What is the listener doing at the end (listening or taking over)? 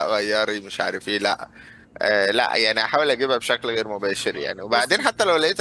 listening